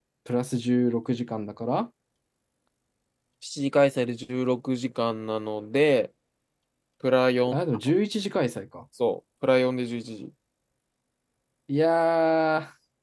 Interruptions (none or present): none